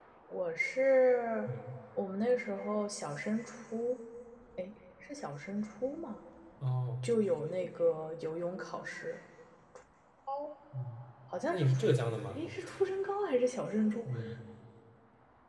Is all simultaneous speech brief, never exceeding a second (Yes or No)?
Yes